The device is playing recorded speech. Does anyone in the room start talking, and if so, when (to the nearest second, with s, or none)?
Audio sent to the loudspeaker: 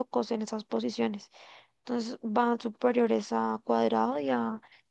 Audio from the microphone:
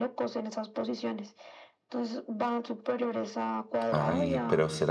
4 s